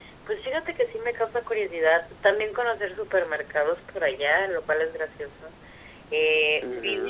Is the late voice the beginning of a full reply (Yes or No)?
Yes